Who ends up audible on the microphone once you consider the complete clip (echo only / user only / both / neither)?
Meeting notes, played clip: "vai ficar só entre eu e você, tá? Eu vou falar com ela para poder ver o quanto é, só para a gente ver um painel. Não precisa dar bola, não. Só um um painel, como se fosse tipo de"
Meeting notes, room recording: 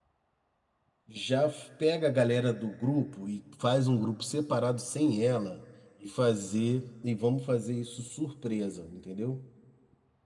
user only